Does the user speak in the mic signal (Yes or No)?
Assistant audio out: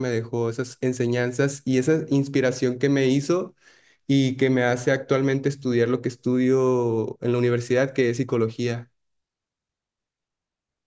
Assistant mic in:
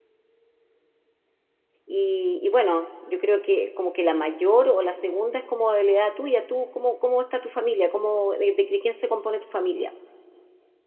Yes